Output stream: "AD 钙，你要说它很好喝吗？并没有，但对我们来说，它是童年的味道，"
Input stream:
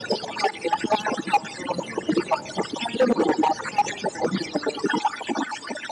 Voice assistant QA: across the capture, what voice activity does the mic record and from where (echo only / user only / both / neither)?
echo only